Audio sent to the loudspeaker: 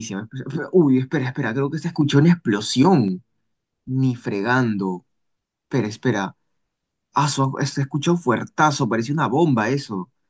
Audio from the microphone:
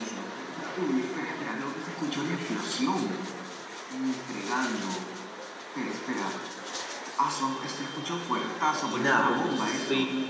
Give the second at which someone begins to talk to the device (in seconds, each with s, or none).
8.9 s